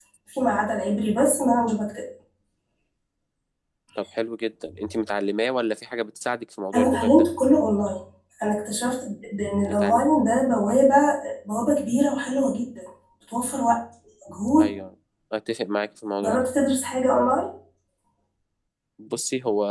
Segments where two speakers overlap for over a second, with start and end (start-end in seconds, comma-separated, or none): none